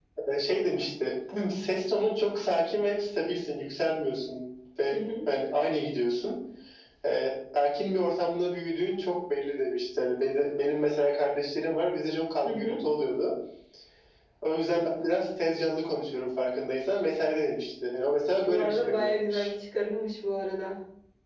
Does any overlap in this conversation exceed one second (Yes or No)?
Yes